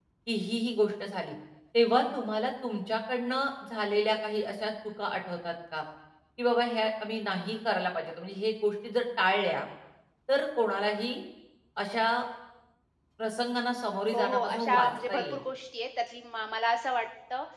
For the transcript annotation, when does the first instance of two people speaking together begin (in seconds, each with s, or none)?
14.1 s